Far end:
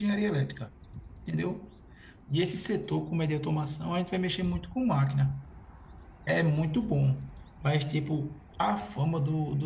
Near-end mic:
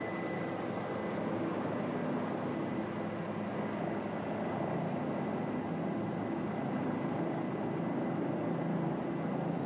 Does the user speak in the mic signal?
No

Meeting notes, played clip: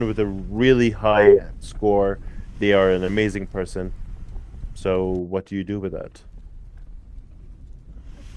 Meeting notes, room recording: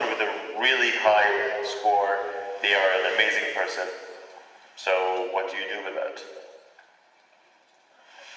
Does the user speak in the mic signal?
No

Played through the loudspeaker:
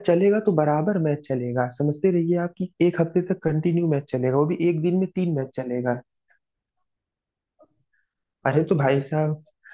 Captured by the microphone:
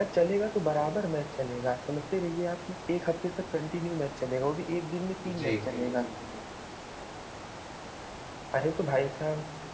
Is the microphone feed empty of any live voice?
No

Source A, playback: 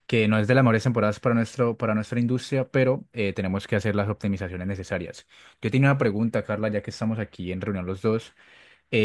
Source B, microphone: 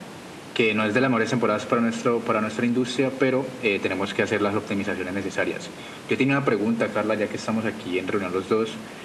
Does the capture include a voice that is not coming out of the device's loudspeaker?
No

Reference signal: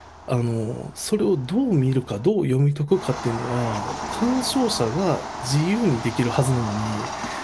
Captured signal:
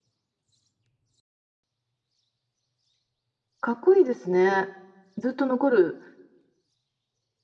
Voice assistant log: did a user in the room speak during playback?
Yes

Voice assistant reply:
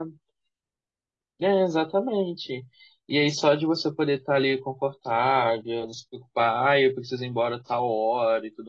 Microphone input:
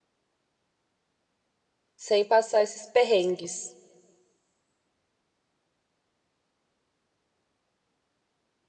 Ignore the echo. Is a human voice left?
Yes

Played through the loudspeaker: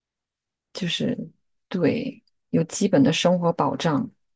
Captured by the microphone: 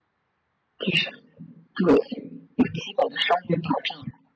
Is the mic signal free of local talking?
Yes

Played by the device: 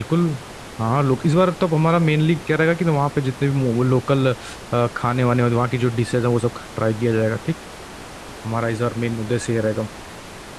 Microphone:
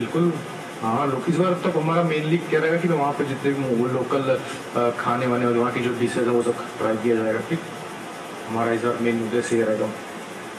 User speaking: No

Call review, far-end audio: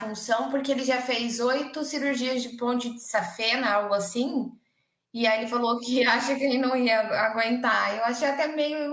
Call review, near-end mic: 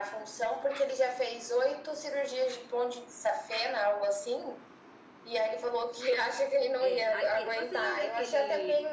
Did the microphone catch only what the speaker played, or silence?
No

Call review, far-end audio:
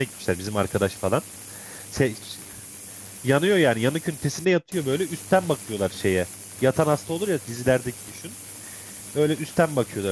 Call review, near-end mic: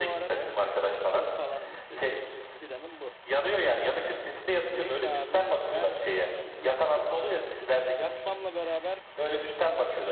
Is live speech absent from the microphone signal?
No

